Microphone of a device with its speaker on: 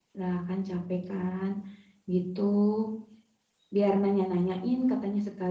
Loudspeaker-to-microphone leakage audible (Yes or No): No